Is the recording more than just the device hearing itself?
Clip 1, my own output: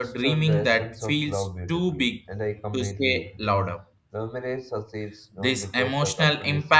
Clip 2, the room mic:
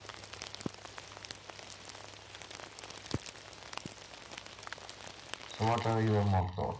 Yes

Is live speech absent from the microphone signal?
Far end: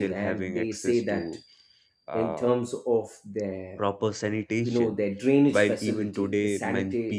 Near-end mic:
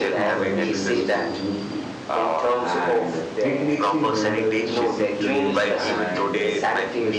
No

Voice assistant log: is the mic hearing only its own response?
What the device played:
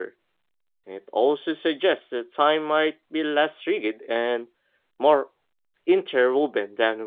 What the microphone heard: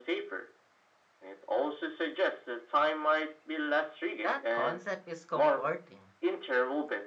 No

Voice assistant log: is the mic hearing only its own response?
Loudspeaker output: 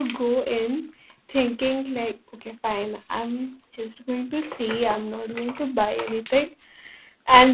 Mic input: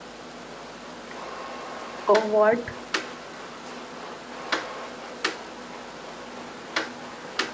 No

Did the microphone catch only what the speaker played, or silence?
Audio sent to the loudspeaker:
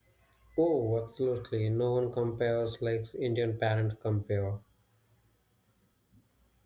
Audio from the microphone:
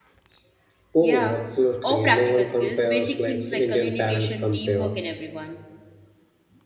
No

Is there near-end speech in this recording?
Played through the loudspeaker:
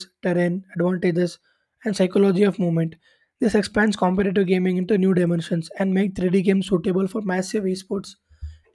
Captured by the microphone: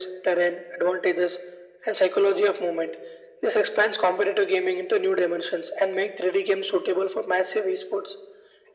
No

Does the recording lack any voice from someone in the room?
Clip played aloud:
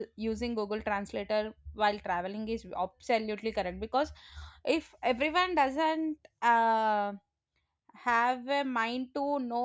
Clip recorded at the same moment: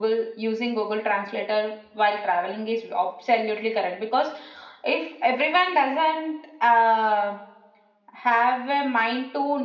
Yes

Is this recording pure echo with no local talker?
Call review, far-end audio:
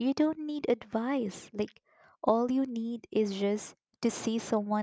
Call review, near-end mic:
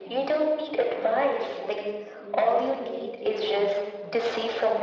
No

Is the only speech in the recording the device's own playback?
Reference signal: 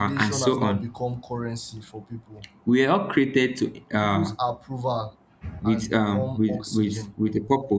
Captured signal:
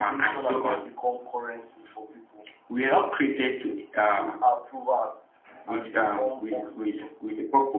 Yes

